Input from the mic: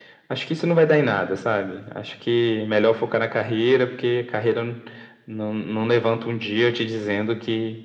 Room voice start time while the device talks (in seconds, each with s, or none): none